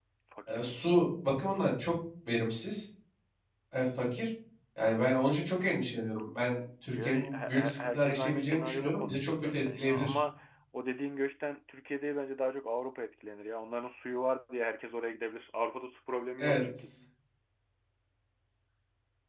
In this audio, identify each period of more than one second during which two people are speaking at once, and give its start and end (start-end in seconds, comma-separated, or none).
6.9-10.2